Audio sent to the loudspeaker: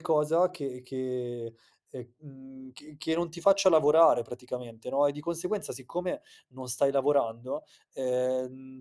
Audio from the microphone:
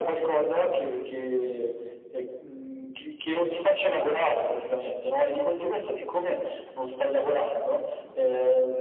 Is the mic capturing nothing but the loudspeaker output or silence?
Yes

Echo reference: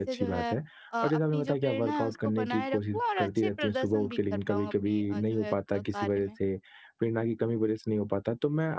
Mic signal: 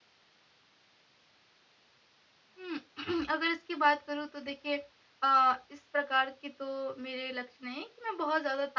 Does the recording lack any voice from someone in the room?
No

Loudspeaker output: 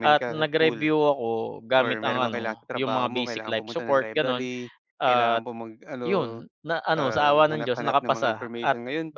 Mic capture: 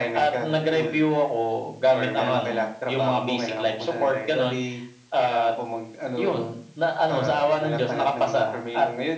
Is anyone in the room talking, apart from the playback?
No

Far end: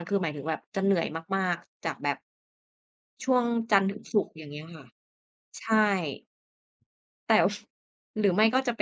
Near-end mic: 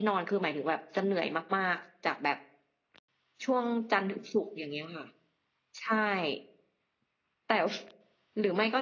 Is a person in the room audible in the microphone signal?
No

